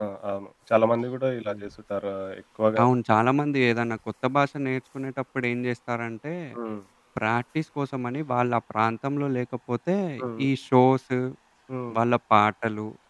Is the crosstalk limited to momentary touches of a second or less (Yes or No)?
Yes